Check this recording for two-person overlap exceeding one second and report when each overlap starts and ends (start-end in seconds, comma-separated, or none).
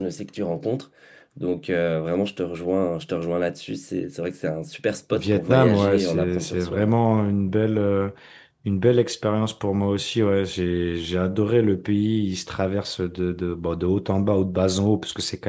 5.1-6.9